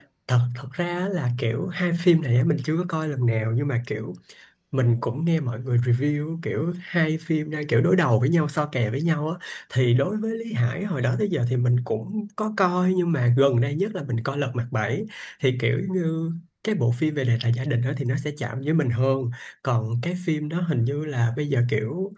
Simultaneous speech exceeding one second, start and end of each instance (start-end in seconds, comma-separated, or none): none